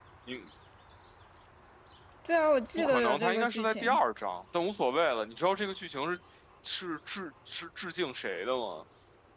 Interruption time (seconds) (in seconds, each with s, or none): 2.8 s